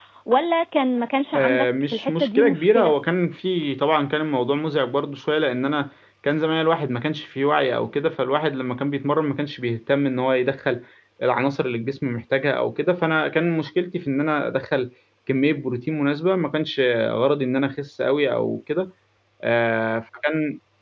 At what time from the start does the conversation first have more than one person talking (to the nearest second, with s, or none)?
1 s